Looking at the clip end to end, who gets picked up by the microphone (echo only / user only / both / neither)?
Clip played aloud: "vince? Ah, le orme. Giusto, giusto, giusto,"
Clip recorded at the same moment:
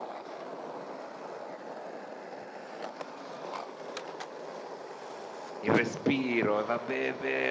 user only